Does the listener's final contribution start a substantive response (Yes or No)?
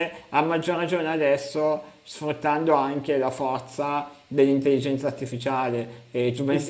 Yes